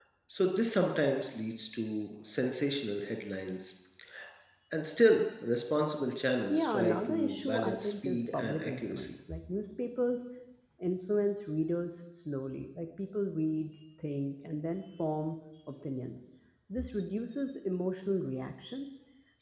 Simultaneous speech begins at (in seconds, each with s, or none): 6.5 s